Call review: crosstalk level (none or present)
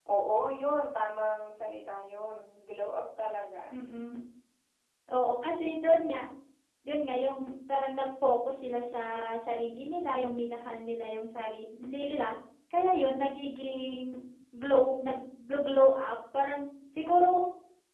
none